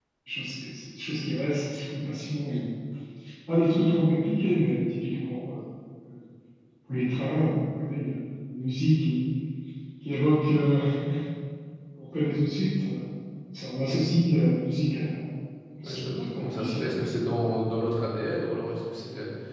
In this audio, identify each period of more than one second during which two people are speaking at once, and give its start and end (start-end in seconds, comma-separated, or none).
15.8-17.2